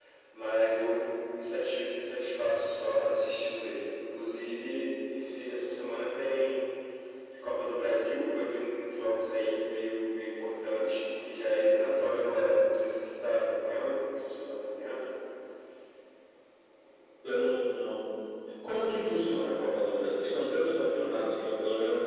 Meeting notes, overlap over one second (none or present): none